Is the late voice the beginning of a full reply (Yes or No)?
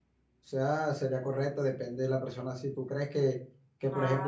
No